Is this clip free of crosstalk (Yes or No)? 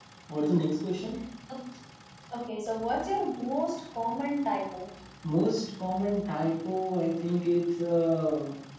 Yes